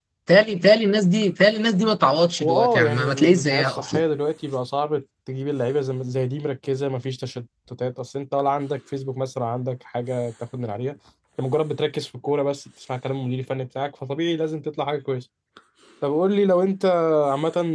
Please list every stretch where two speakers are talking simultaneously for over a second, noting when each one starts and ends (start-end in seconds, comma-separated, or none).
2.4-4.0